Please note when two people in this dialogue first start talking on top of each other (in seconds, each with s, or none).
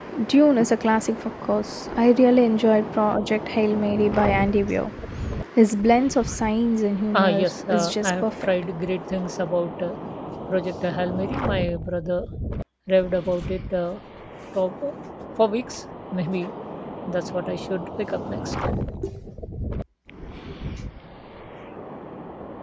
7.1 s